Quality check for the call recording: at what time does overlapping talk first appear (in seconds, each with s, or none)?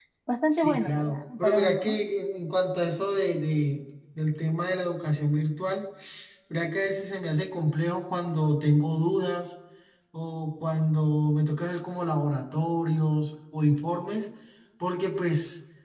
0.5 s